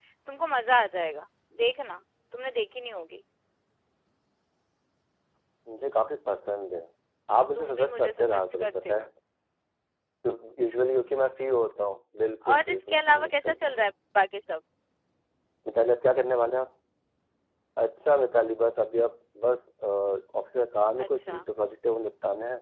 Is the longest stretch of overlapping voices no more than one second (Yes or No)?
No